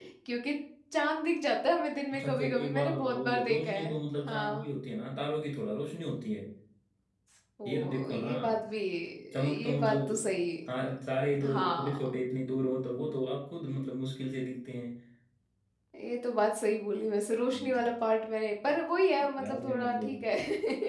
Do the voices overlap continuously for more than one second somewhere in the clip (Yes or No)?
Yes